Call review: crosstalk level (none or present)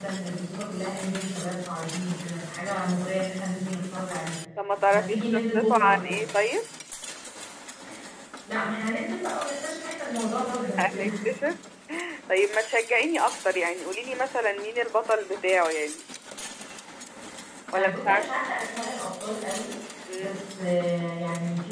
present